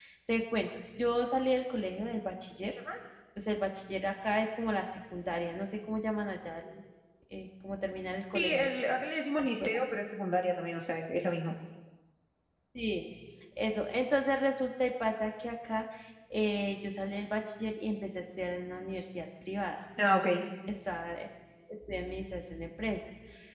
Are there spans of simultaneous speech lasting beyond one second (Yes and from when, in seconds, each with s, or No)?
No